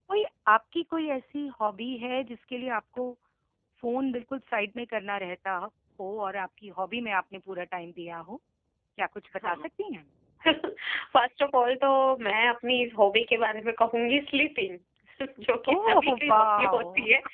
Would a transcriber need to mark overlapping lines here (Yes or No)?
Yes